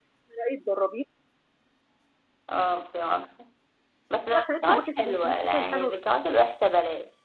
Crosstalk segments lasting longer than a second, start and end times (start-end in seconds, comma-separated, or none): 4.3-6.0